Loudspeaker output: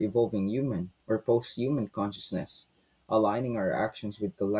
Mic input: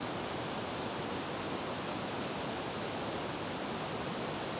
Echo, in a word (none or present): none